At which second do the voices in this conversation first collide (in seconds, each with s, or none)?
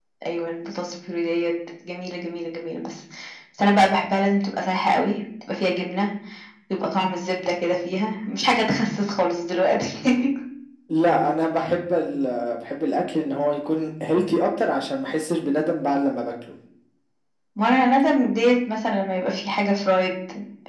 none